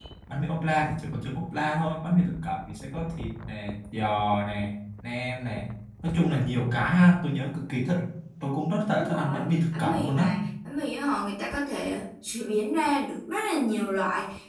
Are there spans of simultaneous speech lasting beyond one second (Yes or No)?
Yes